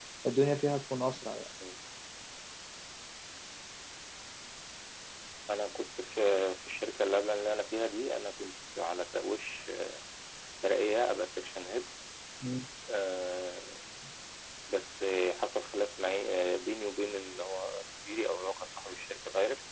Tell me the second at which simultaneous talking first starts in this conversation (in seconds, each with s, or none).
none